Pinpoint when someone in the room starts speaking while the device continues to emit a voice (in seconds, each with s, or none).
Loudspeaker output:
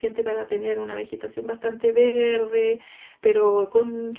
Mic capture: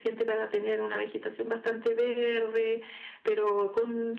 none